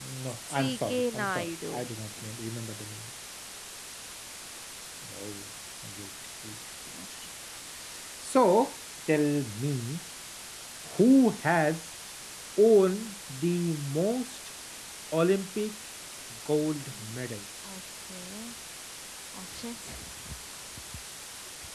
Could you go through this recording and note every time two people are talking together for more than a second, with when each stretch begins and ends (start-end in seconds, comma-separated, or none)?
0.5-1.7